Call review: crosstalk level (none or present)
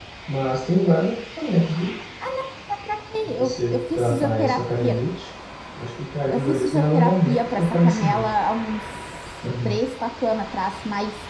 present